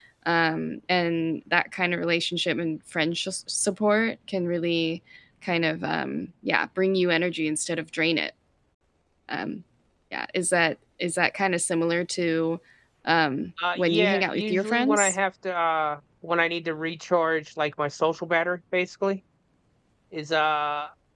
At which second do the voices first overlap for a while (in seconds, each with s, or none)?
13.8 s